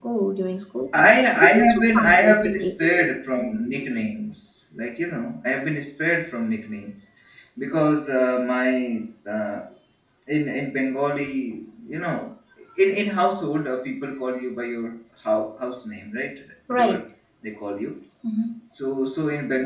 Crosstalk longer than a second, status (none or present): present